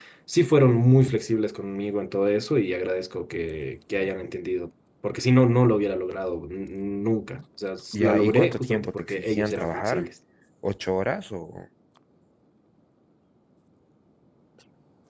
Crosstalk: present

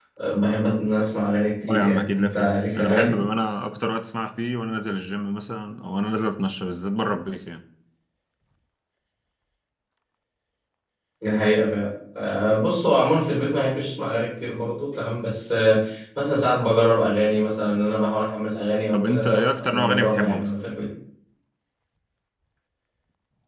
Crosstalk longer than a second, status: present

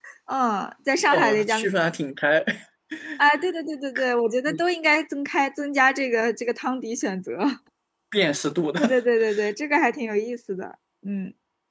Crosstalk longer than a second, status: none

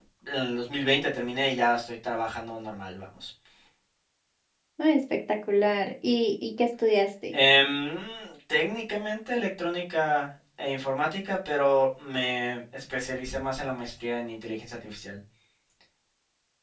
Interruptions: none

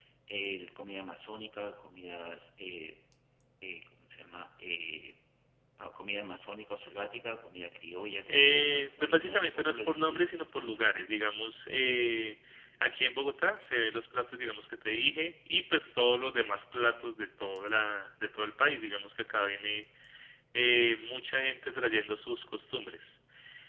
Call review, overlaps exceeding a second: present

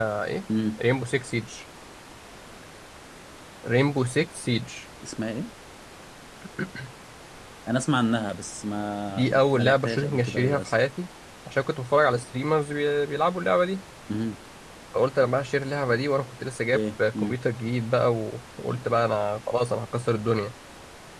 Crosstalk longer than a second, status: present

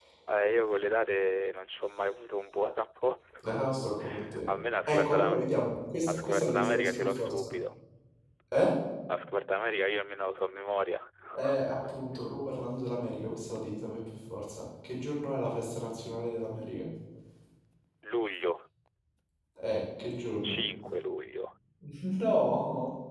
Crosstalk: present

